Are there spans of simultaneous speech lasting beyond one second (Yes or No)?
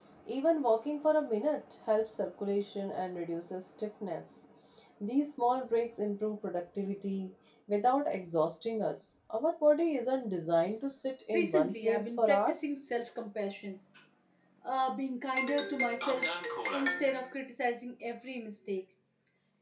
Yes